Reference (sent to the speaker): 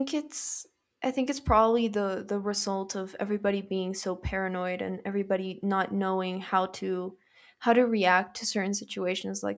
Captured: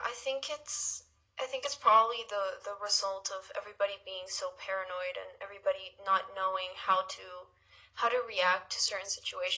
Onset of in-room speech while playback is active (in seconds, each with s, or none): none